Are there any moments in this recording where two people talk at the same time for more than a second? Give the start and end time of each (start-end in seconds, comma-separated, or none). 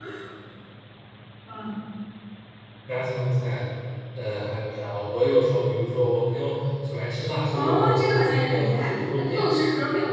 7.5-9.5